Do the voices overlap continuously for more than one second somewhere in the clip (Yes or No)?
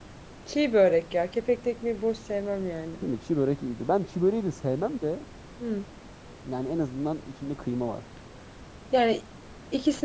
No